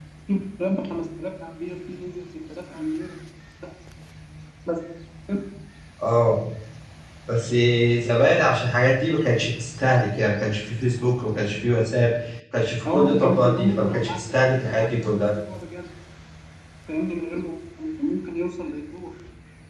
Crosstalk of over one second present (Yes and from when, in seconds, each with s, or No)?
Yes, from 12.9 s